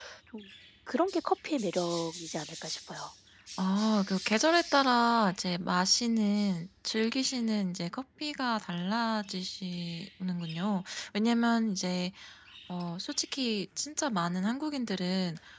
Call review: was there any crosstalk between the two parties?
No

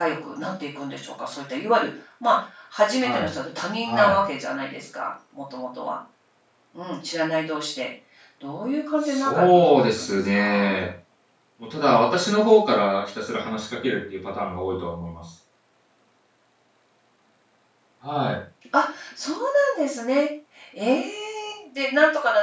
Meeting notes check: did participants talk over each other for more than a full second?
Yes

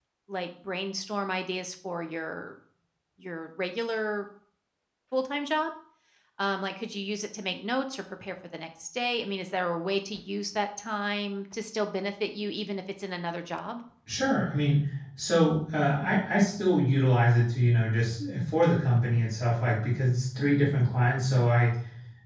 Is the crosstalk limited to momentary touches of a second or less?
Yes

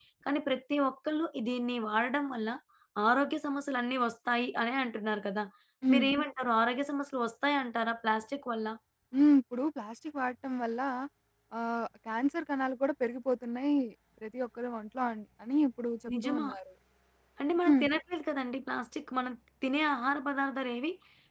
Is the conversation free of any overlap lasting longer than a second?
Yes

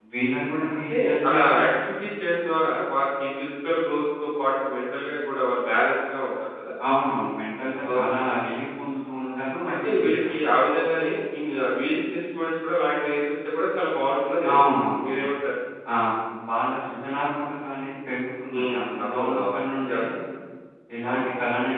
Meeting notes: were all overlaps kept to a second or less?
No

